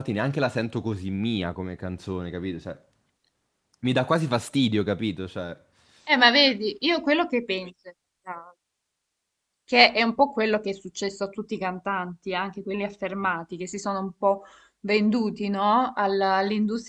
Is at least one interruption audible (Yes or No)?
No